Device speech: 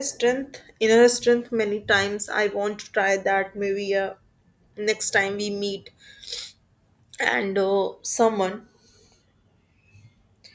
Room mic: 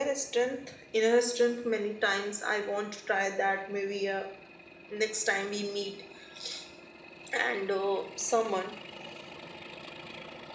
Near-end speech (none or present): none